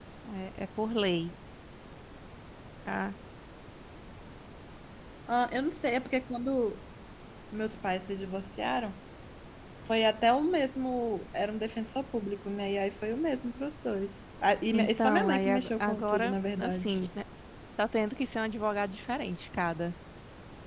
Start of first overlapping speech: 14.7 s

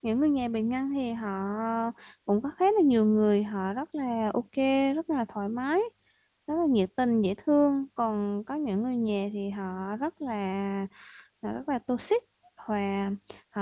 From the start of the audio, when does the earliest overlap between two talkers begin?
none

